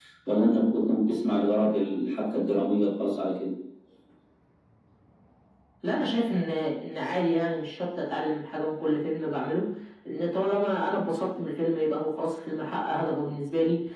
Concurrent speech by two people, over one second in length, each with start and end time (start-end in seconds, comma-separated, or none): none